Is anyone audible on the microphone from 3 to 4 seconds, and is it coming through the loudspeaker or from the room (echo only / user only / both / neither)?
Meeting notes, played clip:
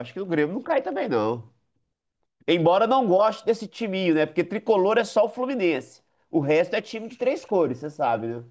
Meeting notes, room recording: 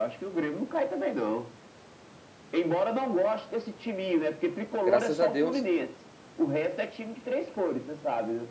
echo only